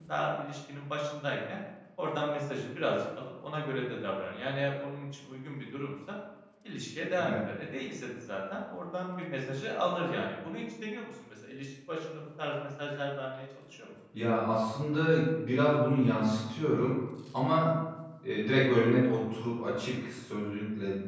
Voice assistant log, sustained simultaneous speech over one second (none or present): none